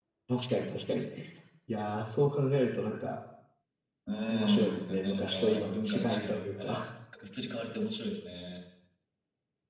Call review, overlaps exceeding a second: present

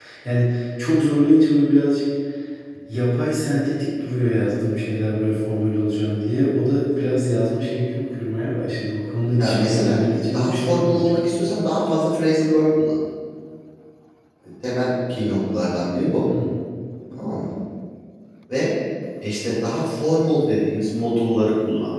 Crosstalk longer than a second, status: present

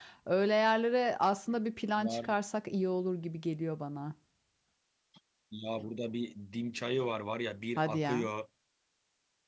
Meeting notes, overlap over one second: none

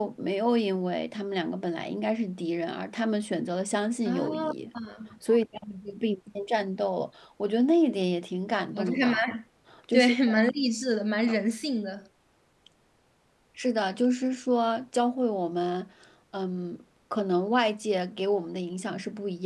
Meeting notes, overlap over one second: none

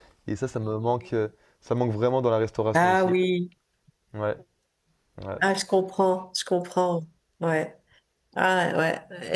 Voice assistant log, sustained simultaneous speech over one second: none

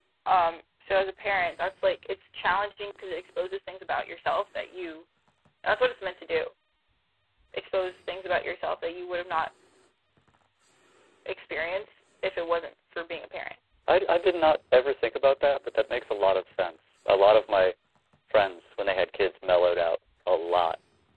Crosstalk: none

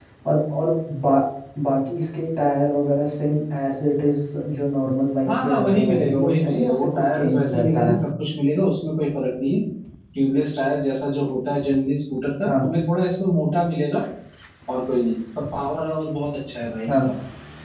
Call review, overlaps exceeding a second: present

